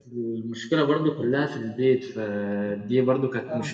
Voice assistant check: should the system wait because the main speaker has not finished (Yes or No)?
Yes